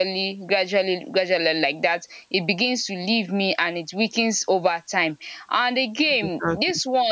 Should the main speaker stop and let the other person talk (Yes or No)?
No